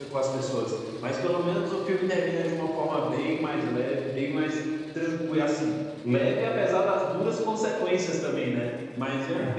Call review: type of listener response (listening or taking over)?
listening